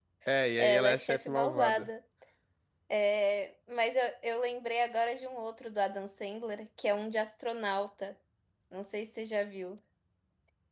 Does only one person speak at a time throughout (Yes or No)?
No